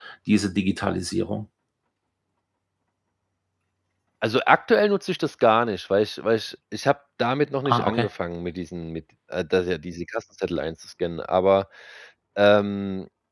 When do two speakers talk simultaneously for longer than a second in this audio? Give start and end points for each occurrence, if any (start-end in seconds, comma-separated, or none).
none